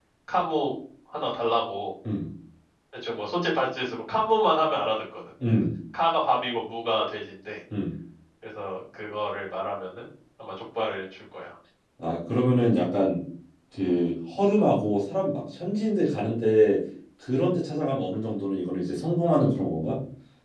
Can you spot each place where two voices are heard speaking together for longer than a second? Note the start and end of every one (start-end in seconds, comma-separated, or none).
none